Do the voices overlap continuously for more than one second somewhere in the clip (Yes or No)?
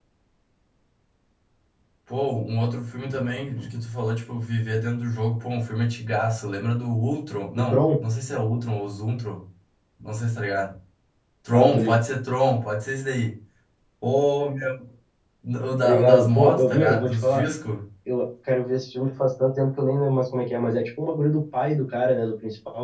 Yes